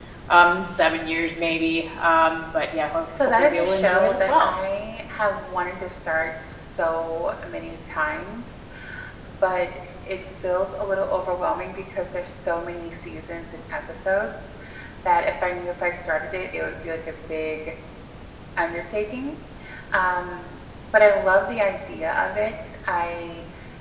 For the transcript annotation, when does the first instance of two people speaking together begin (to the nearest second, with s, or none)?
3 s